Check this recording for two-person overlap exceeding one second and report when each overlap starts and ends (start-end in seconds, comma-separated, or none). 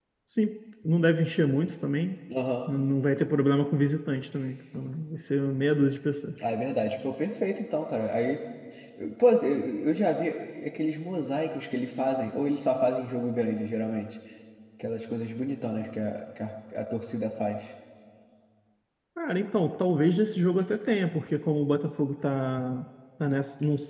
none